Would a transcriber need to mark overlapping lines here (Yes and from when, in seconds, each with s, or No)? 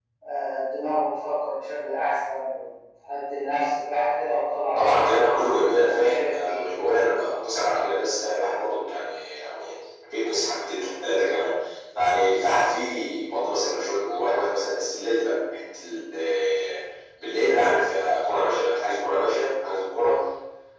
Yes, from 4.7 s